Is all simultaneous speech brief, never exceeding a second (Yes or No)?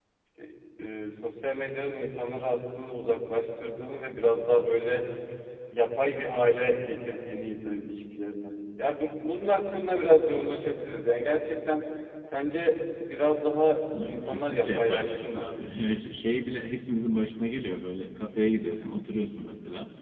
No